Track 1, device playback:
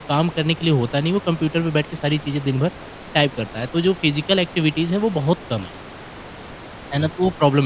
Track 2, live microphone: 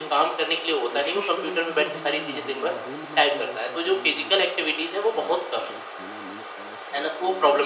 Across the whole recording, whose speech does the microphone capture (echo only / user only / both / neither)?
both